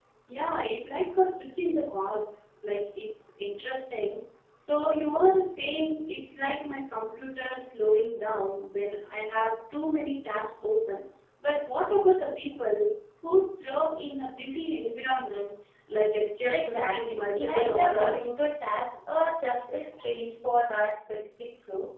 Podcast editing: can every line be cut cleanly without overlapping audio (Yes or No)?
No